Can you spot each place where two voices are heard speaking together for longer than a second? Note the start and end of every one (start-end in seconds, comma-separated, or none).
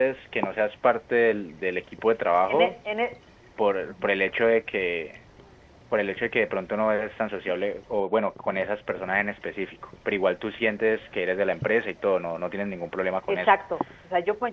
none